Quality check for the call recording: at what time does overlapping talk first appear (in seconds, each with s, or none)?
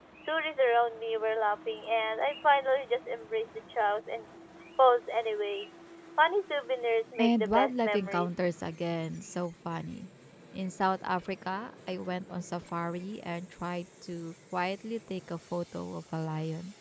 7.2 s